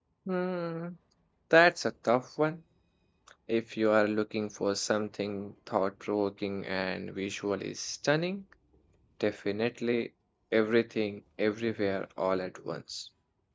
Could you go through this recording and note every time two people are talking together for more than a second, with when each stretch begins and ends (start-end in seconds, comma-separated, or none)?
none